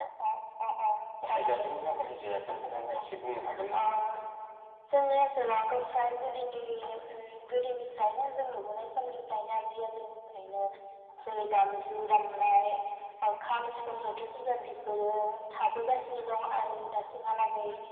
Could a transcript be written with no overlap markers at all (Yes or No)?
No